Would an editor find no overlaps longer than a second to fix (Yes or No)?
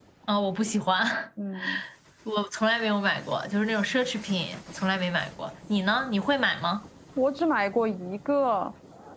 Yes